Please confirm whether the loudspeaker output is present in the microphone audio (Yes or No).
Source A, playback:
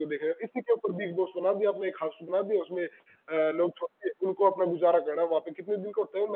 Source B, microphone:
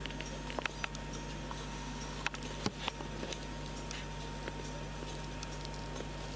No